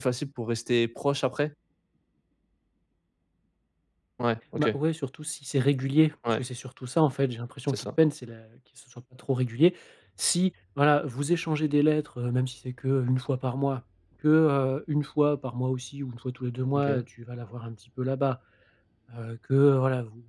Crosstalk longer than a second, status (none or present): none